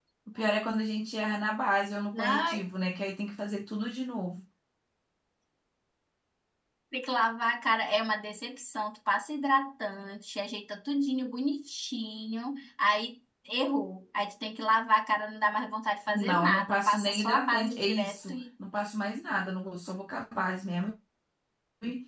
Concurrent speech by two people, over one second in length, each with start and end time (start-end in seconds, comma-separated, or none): 16.1-18.4